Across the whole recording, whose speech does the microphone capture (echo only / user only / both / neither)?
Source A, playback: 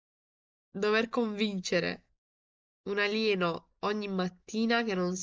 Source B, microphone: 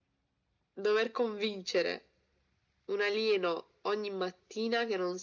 echo only